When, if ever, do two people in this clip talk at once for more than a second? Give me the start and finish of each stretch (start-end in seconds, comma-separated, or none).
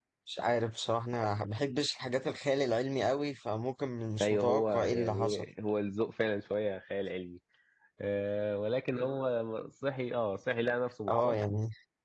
4.2-5.5